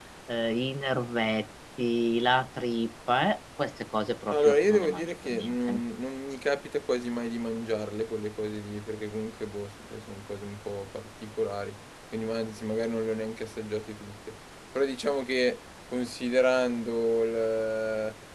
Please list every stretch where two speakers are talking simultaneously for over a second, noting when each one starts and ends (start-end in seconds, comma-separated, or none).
4.3-5.8